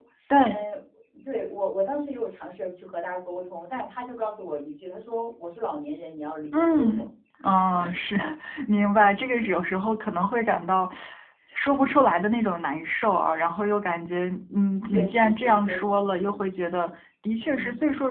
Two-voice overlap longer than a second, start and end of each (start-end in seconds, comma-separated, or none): 14.8-16.4